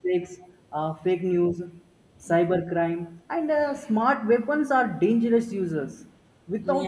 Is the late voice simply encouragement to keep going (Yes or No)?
Yes